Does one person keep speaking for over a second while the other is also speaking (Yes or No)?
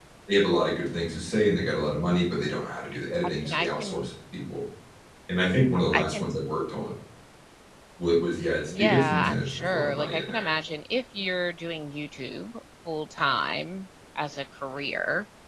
Yes